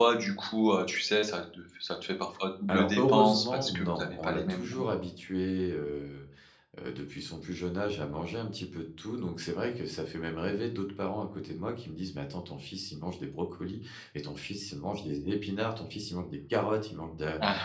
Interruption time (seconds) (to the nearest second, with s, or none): 3 s